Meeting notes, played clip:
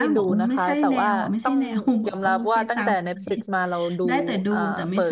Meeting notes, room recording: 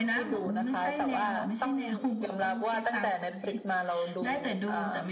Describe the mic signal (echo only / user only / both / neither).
echo only